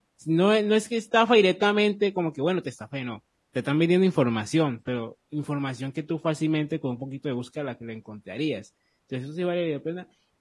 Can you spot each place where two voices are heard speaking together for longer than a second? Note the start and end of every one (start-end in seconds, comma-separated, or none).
none